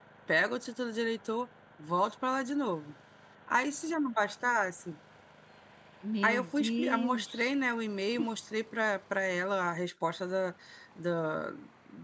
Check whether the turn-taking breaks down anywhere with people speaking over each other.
Yes, from 6.2 s

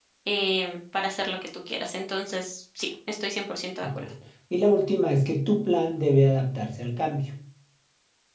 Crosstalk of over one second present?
No

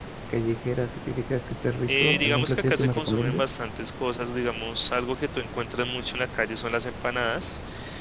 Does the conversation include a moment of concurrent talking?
Yes, from 1.9 s

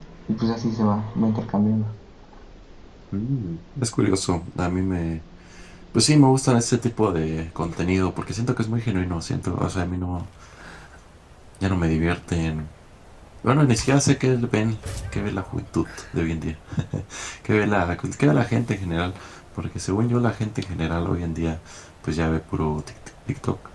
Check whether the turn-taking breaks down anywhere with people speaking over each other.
No

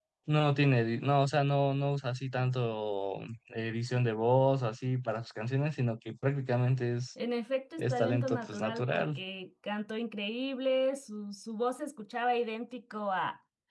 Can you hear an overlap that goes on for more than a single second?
Yes, from 7.8 s

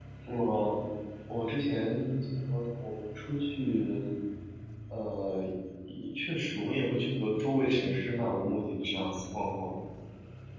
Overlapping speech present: No

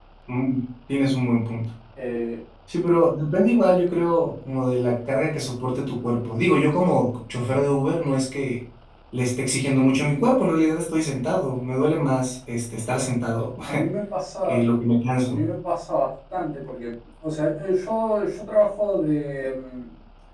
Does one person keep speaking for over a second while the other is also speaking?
No

